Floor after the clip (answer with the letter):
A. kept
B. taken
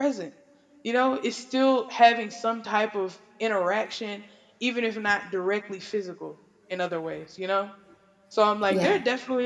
A